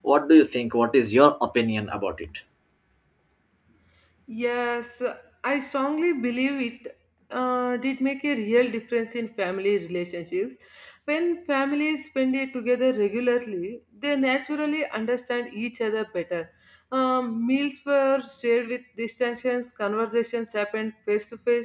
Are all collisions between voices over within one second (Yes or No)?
Yes